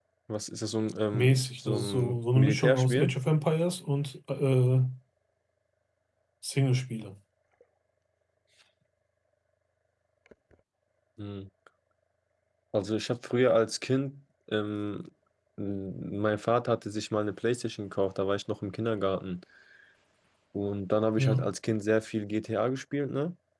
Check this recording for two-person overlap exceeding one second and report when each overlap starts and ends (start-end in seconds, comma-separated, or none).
1.1-3.1